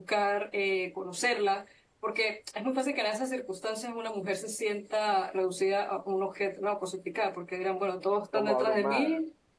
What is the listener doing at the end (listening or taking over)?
listening